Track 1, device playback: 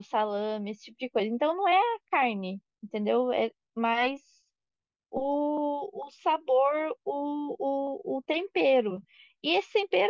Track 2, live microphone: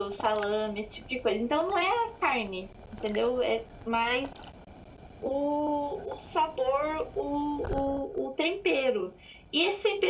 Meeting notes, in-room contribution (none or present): none